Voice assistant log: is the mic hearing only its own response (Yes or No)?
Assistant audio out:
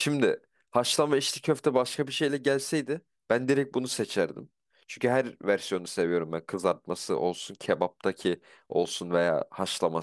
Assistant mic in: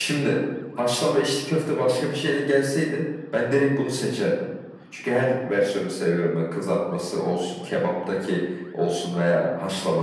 Yes